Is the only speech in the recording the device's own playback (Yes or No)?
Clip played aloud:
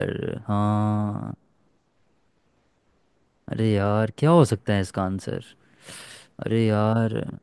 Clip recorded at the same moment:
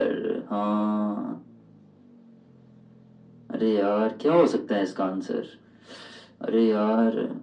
Yes